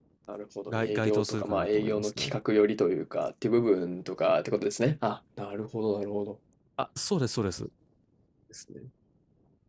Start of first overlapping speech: 0.7 s

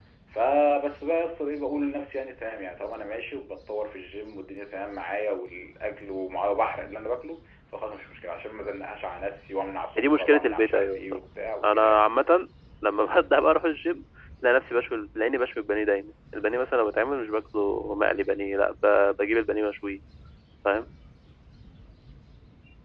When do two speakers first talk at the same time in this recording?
10.0 s

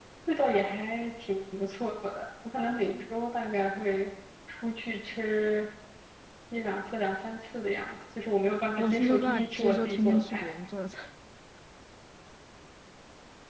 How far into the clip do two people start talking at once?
8.8 s

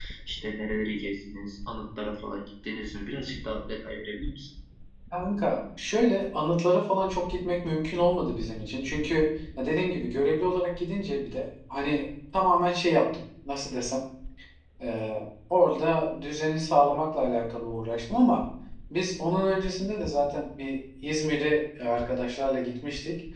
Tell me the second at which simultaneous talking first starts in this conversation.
none

